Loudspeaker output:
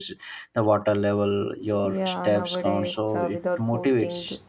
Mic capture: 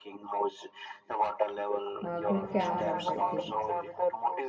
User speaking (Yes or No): Yes